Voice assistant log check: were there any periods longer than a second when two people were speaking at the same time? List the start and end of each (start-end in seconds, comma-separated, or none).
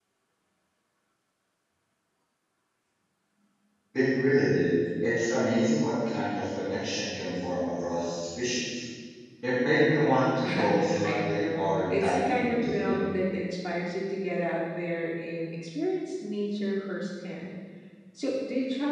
10.4-13.0